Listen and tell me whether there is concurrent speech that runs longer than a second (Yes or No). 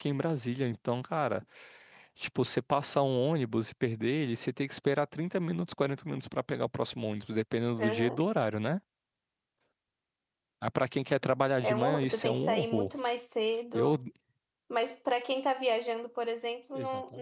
Yes